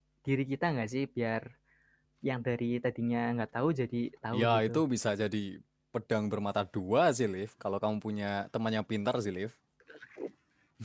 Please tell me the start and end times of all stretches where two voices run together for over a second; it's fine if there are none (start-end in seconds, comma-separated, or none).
none